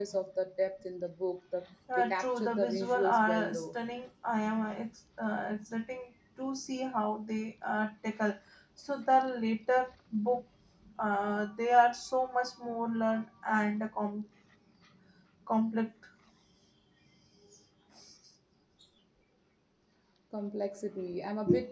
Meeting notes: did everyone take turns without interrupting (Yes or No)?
No